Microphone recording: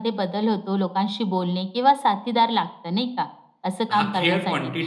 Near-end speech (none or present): present